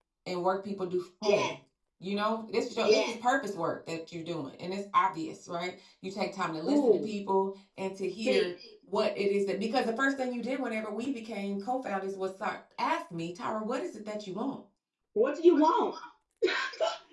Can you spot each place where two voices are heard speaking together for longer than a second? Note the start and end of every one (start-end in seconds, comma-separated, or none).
none